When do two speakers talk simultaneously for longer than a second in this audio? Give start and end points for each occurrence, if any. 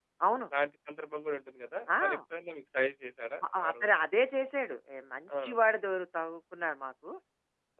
none

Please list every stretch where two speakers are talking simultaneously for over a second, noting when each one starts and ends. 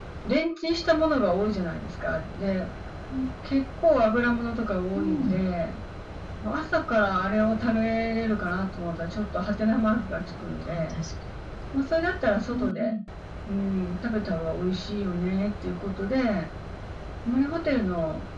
none

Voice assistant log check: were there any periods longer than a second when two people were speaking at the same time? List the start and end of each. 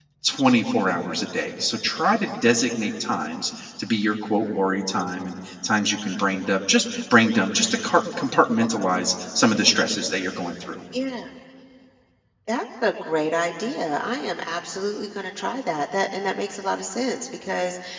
none

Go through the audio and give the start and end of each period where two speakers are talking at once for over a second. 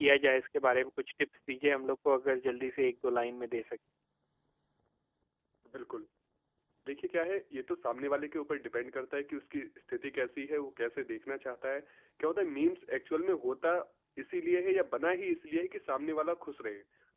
none

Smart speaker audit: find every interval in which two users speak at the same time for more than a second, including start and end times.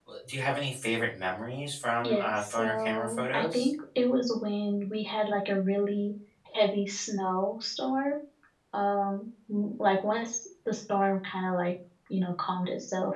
2.0-3.7

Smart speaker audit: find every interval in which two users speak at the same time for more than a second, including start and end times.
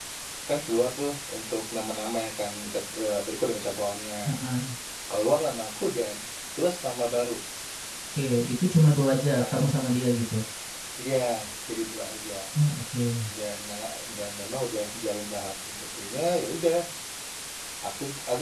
none

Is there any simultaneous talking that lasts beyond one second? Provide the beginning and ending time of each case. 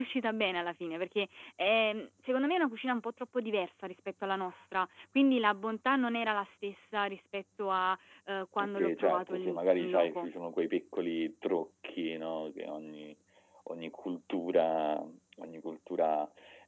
8.6-10.3

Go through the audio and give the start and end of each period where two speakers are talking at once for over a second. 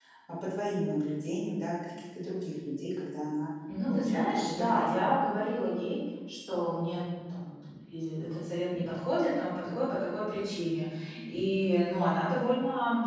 3.9-5.2

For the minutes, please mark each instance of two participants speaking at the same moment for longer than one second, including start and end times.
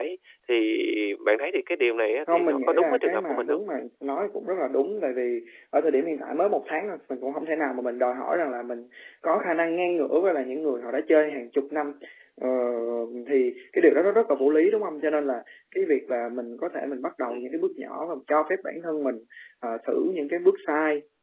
2.3-3.6

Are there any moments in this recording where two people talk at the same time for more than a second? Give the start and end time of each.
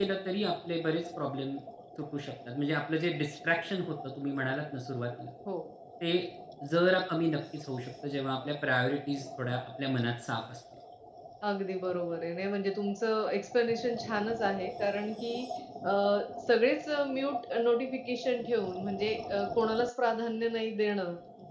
none

